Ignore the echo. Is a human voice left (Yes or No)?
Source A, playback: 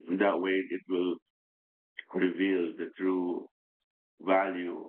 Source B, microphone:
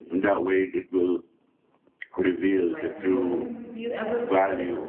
Yes